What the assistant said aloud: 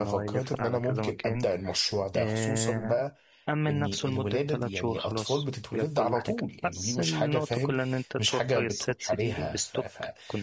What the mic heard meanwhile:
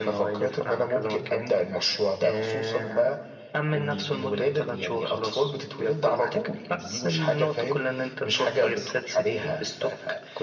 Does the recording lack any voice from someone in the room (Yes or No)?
Yes